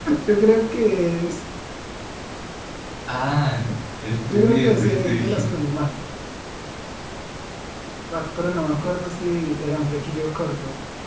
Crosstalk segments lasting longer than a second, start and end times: 4.3-5.5

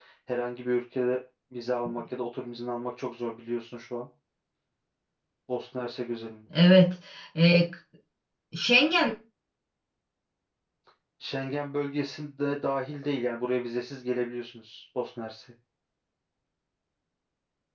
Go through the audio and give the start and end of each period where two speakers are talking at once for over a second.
none

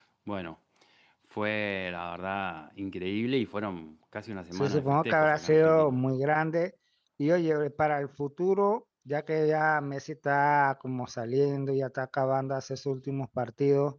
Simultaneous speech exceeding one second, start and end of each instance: 4.5-6.0

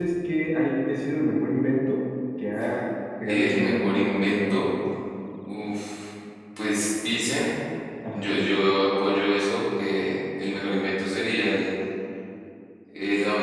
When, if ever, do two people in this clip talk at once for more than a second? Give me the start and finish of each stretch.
3.3-4.6

